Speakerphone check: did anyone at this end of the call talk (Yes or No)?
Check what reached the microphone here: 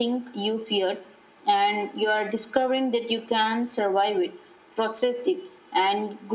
No